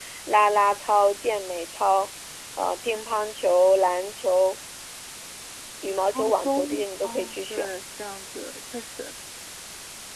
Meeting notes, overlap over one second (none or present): present